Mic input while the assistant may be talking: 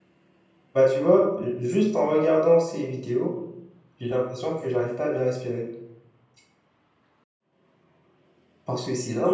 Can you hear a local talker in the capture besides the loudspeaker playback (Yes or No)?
Yes